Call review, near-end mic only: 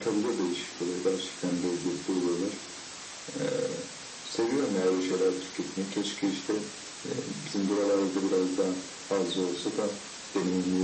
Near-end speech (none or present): none